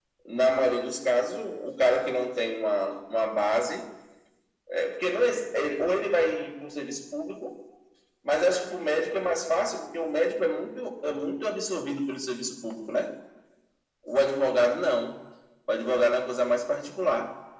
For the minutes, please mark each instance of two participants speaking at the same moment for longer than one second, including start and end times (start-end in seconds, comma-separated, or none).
none